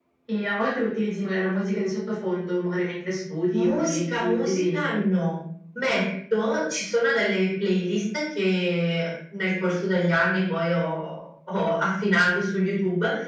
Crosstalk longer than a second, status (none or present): present